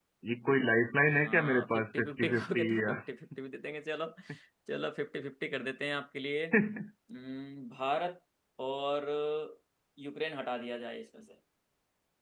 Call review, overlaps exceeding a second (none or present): present